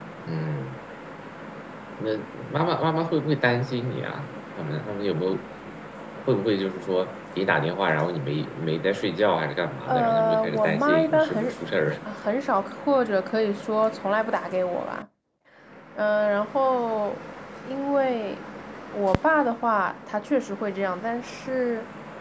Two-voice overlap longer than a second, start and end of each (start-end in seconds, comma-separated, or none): 9.9-11.8